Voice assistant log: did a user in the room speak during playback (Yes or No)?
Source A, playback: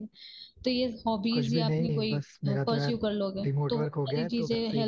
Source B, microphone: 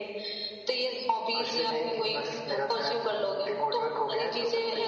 No